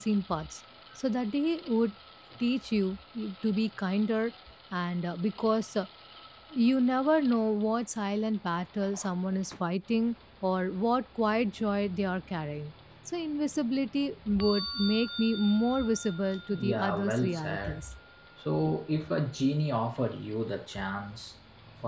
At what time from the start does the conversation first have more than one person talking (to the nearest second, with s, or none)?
17 s